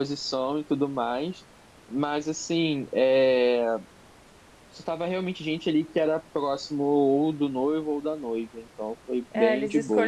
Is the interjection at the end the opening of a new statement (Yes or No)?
Yes